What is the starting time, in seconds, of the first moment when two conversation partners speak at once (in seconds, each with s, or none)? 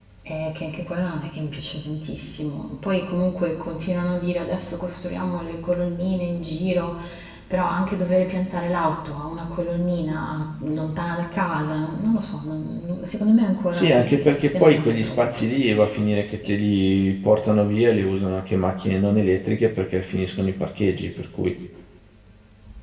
13.7 s